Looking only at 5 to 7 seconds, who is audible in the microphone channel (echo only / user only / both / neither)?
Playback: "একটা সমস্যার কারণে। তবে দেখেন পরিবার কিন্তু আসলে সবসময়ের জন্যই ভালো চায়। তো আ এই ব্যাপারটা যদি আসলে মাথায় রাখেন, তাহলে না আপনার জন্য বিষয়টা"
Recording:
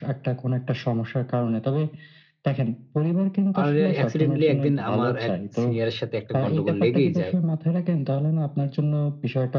both